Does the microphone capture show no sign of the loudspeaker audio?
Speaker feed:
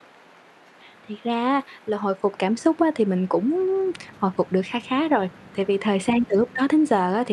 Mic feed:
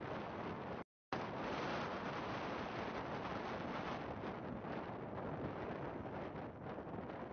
Yes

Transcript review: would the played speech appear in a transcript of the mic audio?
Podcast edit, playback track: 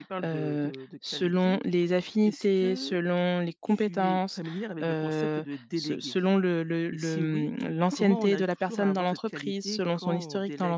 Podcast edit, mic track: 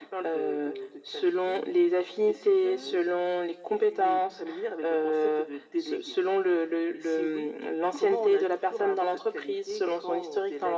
Yes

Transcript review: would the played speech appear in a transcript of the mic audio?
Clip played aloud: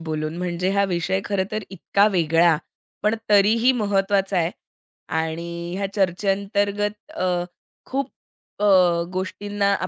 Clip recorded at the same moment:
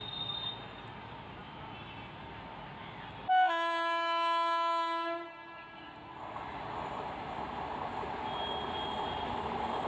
No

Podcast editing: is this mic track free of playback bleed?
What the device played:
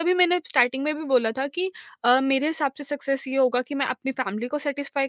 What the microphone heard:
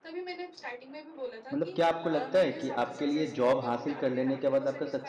No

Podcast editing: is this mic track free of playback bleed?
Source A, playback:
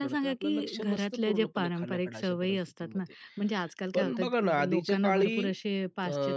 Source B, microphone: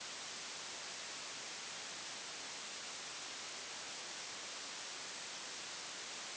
Yes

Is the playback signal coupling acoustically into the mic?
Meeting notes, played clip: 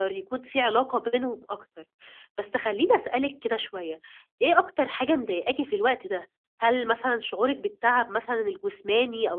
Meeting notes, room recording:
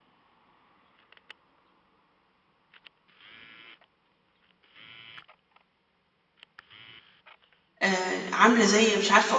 No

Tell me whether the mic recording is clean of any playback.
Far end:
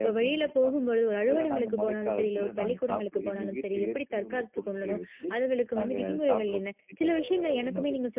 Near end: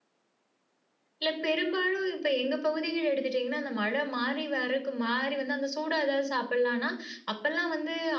Yes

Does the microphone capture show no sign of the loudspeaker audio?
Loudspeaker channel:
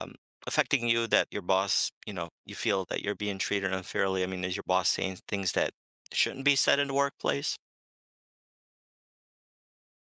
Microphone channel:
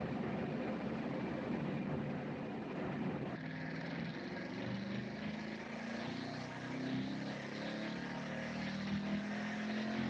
Yes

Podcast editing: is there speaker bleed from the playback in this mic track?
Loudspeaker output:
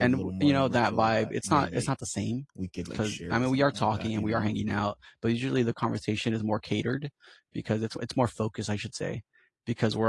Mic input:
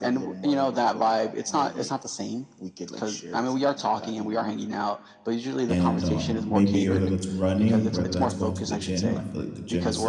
Yes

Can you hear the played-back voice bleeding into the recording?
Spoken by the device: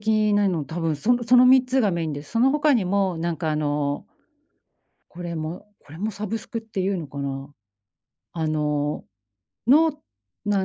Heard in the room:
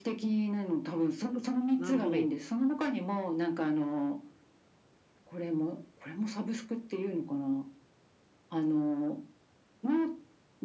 Yes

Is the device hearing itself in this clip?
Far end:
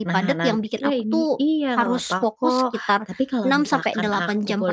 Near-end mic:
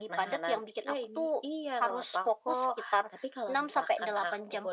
Yes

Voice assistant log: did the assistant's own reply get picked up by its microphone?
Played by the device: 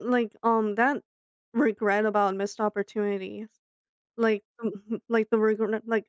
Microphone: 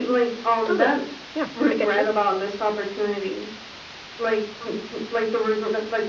Yes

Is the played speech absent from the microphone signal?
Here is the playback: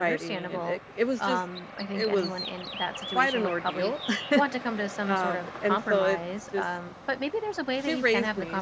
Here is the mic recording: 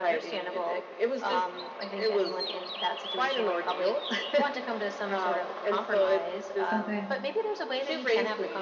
No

